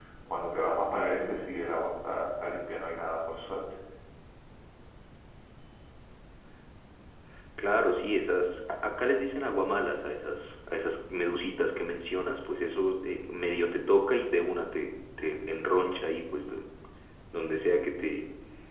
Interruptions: none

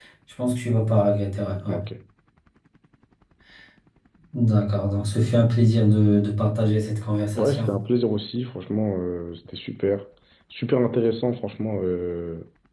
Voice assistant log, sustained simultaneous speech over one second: none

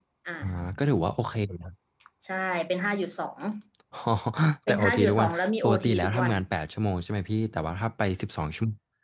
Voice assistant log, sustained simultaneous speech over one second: present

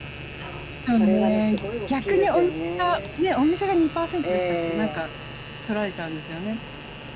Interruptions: present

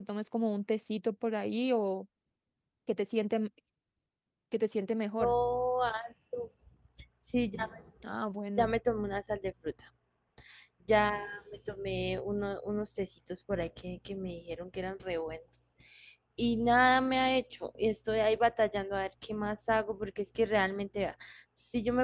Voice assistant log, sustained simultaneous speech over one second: none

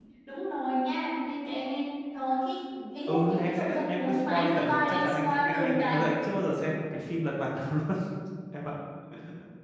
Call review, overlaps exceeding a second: present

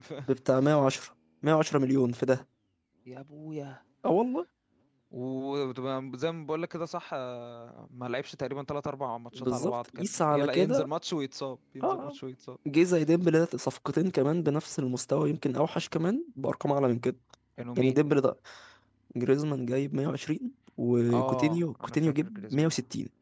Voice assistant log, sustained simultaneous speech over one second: present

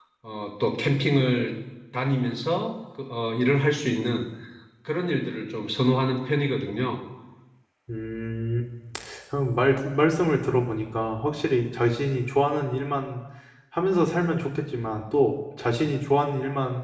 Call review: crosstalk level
none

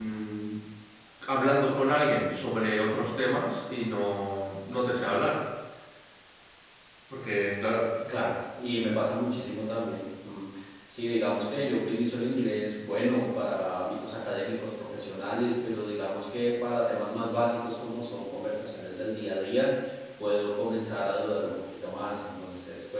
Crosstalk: none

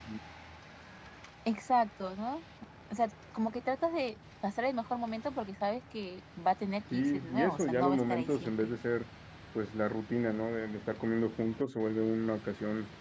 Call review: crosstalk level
present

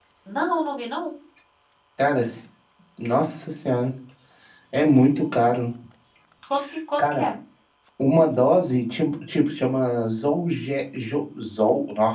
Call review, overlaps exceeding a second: none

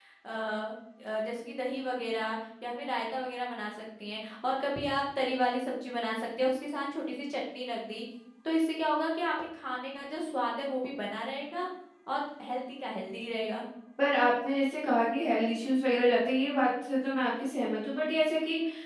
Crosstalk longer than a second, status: none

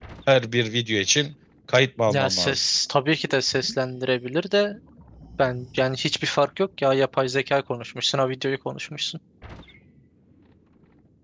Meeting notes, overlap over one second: none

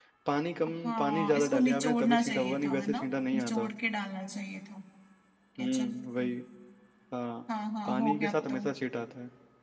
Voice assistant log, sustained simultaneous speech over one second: present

